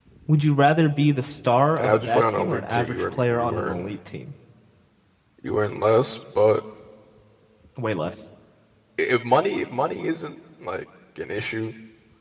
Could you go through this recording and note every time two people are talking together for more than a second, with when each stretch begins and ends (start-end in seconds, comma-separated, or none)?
1.8-3.9